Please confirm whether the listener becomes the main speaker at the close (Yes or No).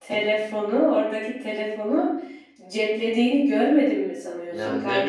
Yes